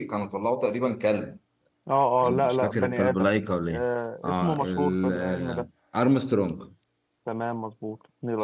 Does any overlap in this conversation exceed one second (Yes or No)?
Yes